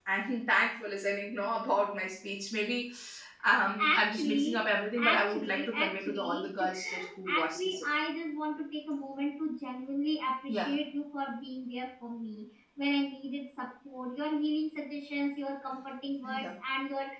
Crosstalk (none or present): present